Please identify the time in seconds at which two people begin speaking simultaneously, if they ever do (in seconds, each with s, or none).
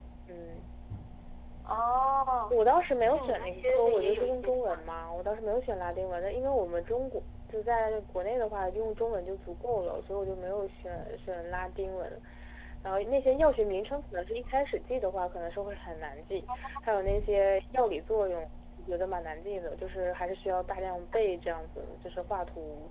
3.0 s